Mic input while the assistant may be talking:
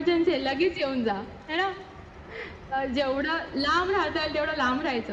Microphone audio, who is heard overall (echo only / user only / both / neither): echo only